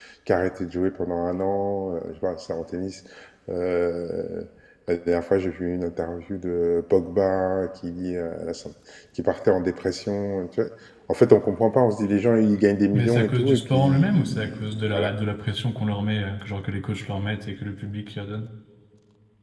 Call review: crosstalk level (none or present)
present